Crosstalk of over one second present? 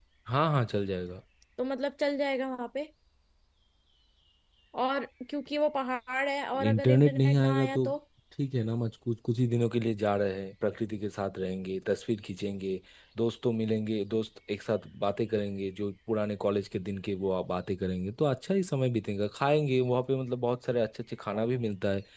Yes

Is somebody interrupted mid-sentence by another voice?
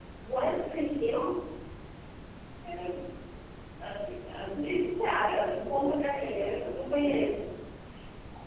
Yes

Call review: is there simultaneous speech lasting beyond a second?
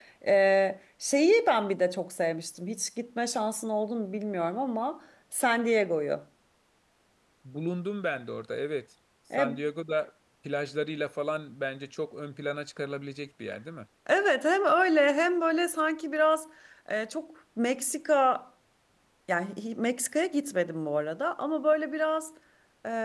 No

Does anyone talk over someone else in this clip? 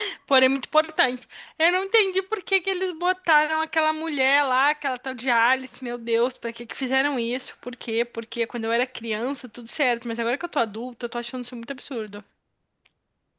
No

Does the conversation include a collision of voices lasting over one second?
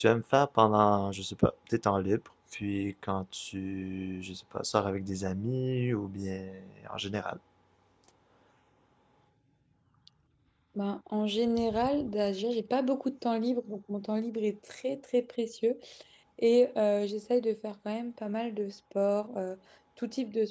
No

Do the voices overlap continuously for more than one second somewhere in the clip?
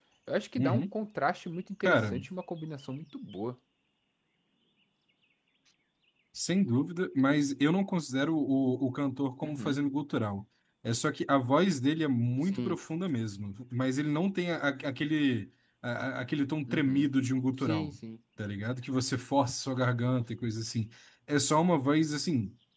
No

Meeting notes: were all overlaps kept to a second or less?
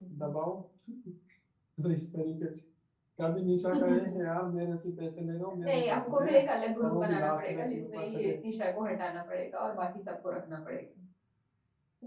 No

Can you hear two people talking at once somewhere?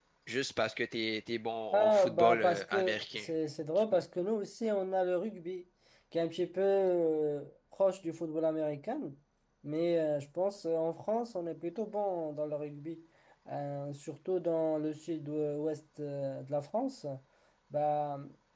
Yes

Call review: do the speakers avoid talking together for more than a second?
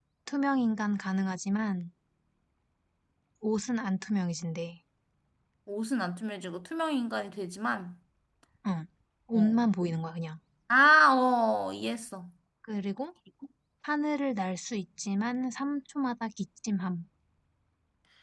Yes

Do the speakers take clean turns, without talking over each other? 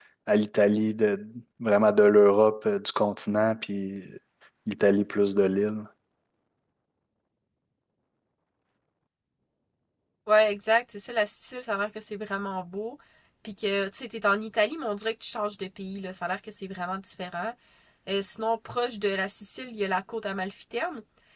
Yes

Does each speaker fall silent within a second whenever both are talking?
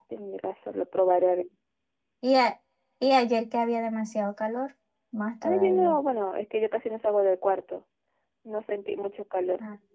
Yes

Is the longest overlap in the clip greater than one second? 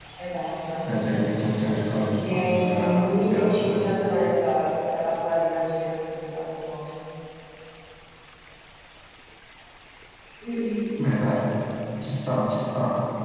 Yes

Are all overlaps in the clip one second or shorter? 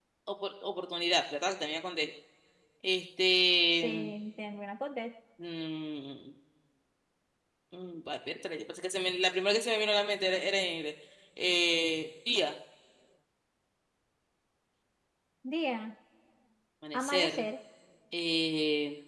Yes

